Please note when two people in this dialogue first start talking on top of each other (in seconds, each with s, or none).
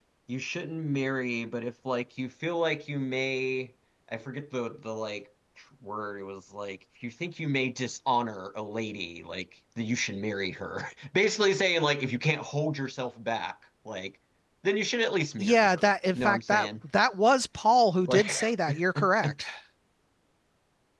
15.4 s